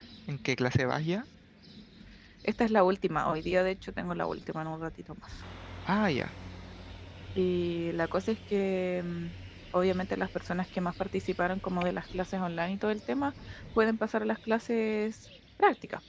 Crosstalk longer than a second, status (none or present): none